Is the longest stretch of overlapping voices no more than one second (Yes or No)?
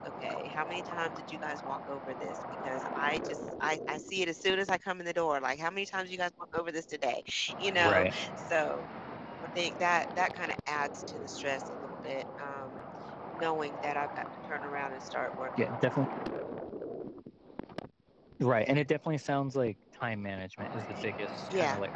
Yes